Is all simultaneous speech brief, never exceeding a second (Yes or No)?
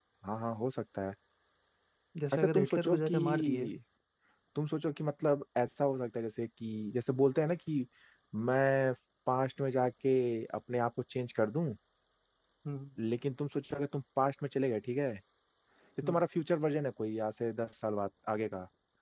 No